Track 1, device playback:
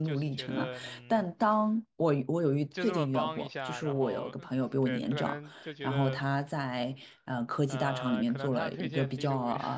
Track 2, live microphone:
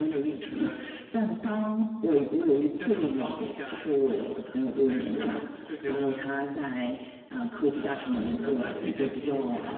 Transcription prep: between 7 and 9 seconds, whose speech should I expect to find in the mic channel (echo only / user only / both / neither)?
echo only